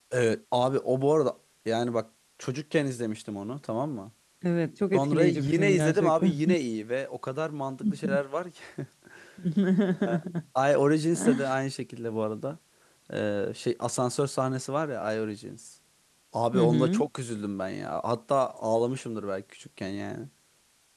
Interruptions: present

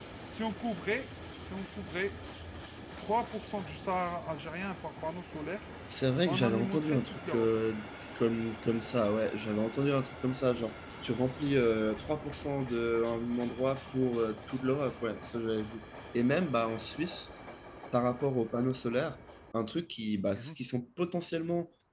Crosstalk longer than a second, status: present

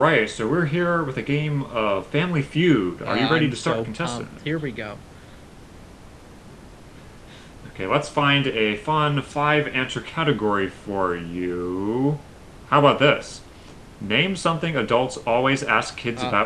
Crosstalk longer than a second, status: present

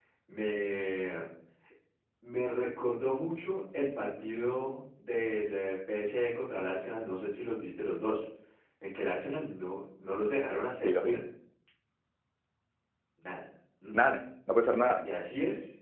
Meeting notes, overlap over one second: none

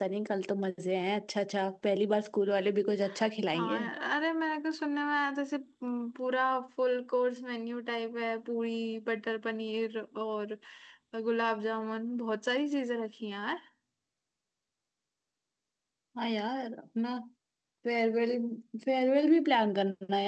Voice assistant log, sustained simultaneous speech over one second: none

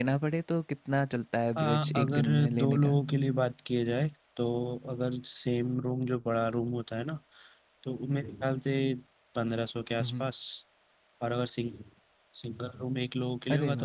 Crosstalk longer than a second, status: present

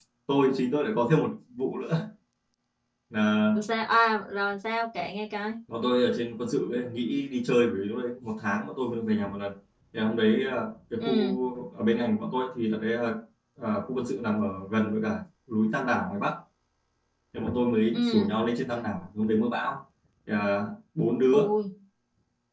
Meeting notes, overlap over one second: none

